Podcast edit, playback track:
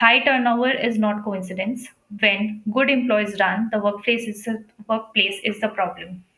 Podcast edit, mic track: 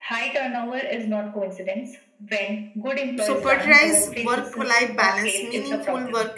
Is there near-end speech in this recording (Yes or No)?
Yes